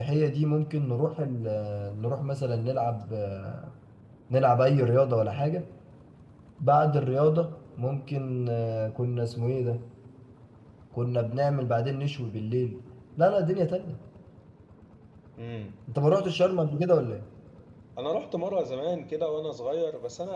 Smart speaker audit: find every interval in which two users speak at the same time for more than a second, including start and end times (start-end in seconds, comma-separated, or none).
none